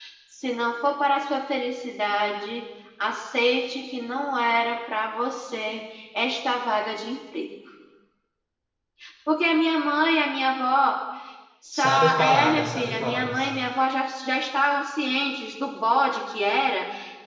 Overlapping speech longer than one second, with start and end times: 11.7-13.5

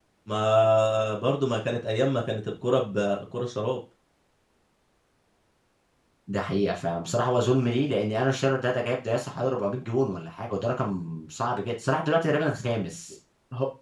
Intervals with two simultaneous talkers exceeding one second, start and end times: none

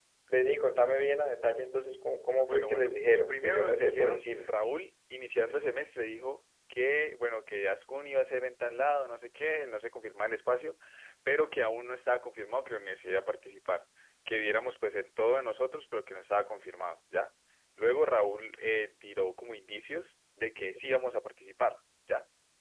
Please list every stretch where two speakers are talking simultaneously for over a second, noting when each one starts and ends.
2.4-4.5

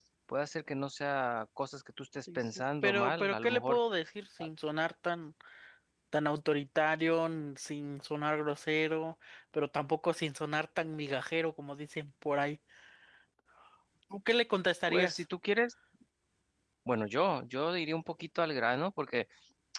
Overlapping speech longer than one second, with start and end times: 2.4-3.8

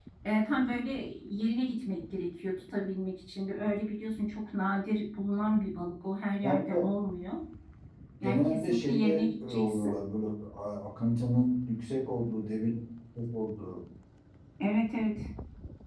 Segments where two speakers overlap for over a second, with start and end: 8.2-9.9

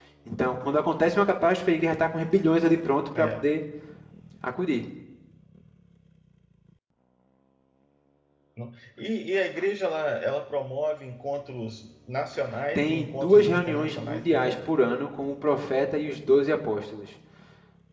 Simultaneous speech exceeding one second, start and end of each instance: 12.8-14.6

